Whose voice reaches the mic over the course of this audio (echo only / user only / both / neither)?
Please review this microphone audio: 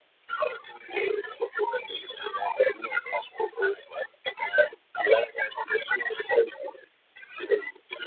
echo only